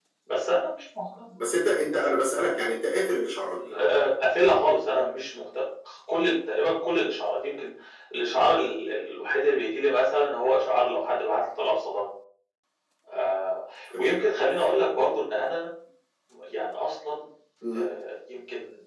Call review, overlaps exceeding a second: none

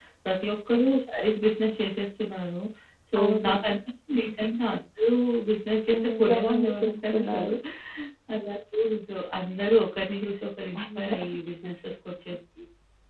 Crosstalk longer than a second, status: present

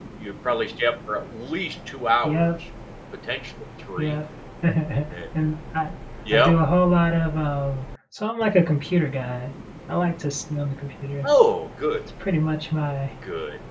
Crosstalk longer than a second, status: none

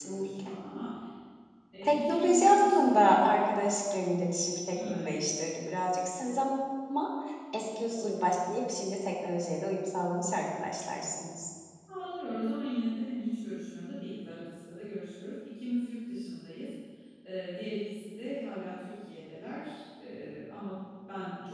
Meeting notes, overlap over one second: present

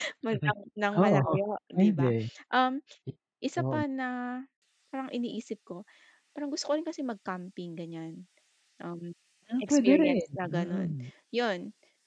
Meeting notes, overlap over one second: present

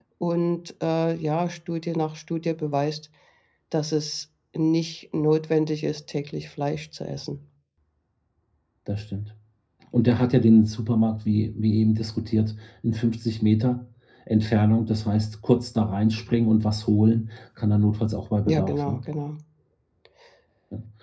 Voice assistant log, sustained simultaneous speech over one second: none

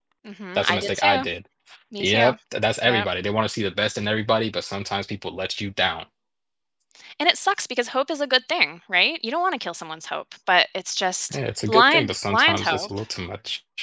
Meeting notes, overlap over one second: present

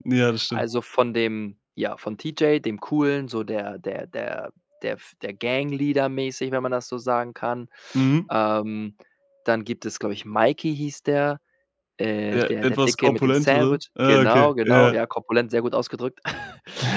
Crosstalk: present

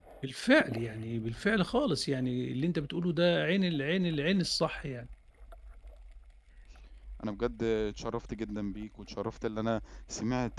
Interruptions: none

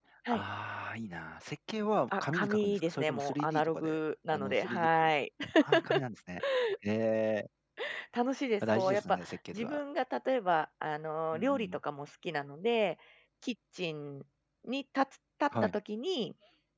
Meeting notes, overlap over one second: present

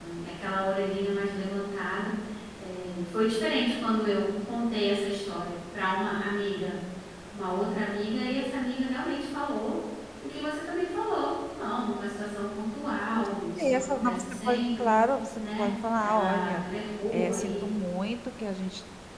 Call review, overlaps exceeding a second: present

